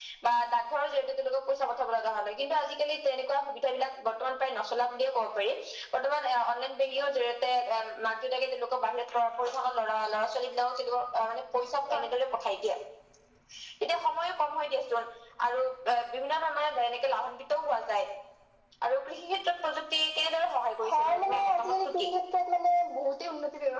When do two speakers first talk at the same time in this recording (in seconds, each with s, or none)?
20.8 s